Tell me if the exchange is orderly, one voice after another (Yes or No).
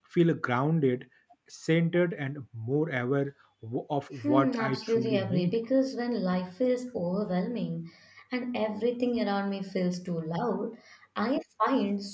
No